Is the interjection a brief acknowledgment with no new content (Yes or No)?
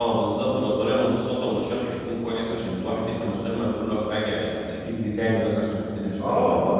No